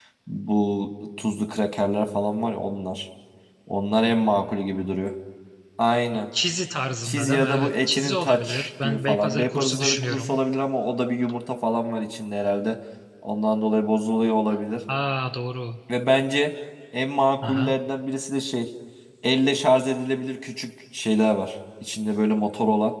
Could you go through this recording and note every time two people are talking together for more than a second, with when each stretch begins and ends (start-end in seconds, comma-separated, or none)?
7.0-10.4